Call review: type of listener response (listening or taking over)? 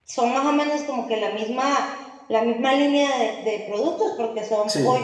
listening